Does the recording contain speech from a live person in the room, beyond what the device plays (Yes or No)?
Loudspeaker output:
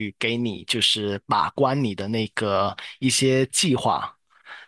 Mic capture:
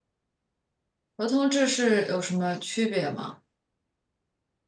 Yes